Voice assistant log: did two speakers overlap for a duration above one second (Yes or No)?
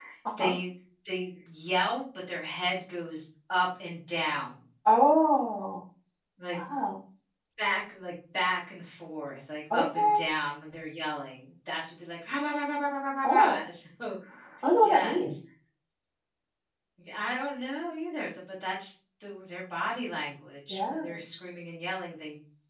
No